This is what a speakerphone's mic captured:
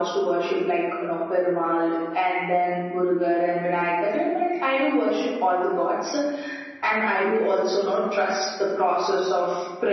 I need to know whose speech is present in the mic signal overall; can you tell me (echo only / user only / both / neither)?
echo only